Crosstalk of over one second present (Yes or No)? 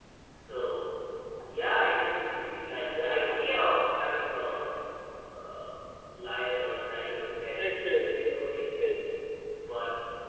Yes